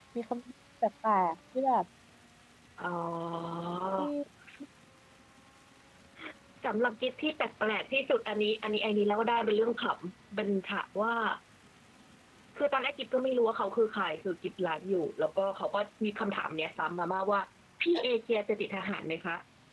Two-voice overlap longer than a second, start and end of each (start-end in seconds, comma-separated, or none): none